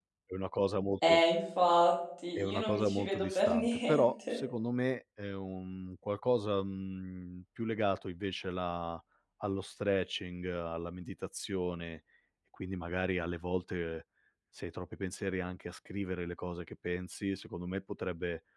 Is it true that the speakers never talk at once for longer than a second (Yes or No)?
No